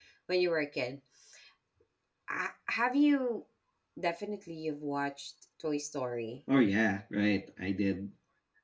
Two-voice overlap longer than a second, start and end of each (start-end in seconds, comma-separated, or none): none